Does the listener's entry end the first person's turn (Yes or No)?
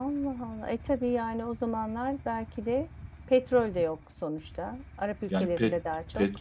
Yes